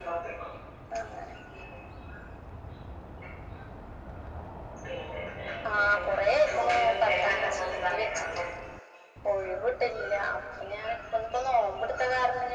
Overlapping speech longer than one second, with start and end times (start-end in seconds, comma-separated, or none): 6.5-8.4